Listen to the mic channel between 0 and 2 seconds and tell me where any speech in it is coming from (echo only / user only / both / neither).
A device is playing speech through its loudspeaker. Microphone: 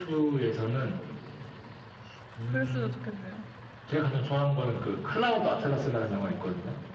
echo only